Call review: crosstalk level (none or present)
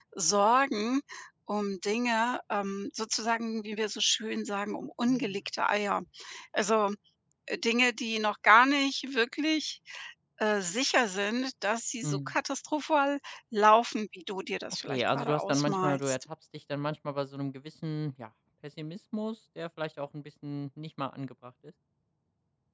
present